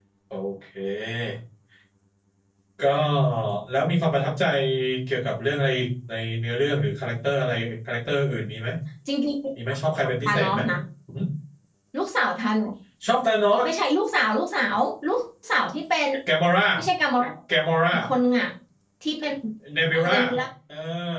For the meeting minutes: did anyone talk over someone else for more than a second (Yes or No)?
No